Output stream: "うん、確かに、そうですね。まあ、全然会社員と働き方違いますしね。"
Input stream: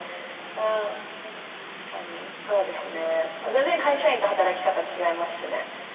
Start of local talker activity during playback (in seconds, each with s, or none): none